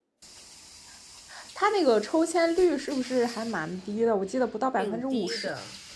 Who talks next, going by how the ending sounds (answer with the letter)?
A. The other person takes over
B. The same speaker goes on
A